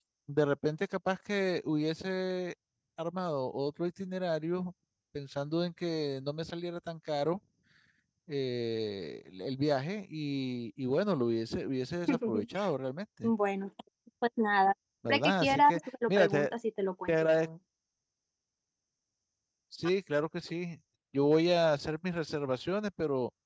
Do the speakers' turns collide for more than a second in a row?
Yes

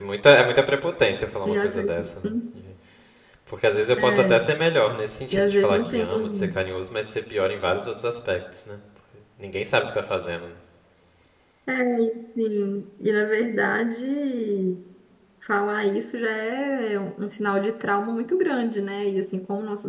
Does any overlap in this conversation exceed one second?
Yes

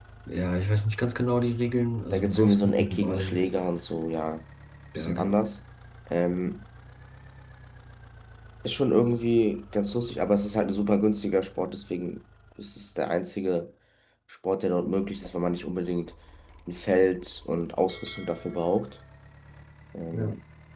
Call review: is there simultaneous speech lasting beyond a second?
Yes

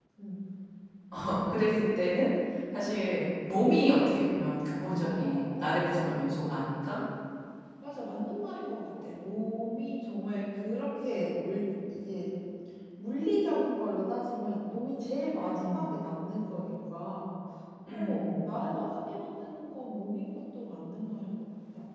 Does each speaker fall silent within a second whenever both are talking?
No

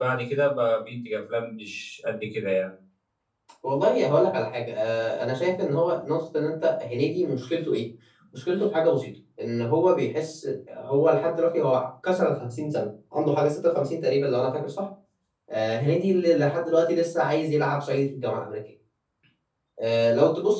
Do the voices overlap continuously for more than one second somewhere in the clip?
No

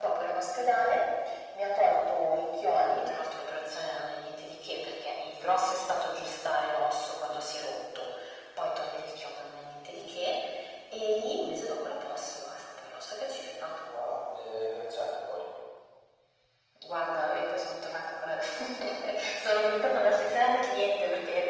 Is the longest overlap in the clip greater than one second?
No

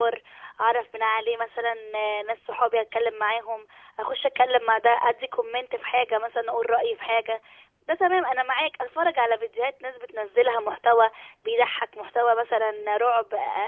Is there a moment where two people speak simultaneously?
No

